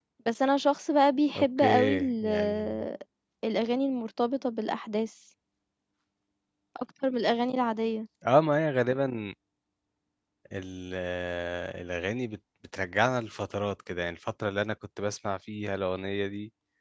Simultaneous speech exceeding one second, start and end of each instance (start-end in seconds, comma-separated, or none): 1.4-2.9